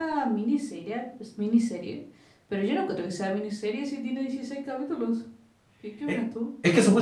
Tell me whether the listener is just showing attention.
No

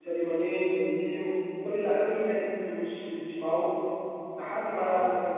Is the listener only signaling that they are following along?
Yes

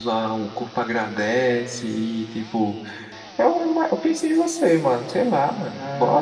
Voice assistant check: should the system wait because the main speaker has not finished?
No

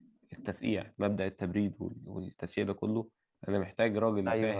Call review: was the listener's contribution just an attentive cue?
Yes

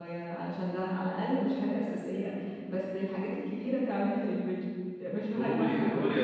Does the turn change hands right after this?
Yes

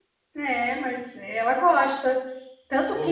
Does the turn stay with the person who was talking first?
Yes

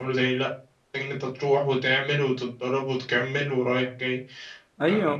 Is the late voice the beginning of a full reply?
Yes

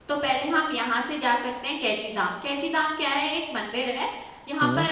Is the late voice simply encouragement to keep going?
Yes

